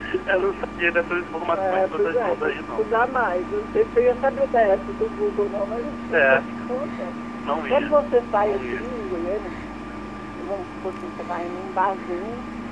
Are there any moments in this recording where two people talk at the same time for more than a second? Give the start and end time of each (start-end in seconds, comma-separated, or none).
1.5-2.9